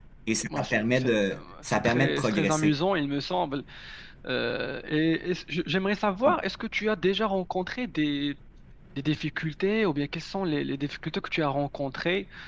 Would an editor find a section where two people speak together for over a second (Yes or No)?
Yes